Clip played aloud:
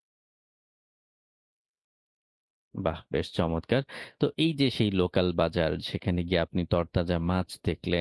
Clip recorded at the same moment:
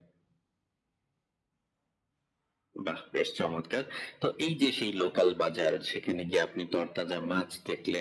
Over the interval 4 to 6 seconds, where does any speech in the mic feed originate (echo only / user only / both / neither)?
echo only